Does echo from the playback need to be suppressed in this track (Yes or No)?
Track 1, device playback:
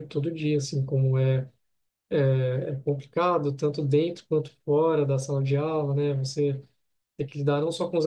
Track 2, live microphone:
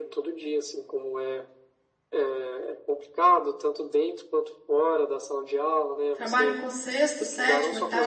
Yes